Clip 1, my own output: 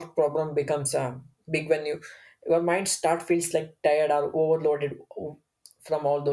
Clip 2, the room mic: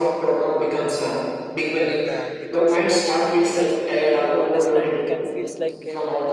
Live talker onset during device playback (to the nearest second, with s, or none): 2 s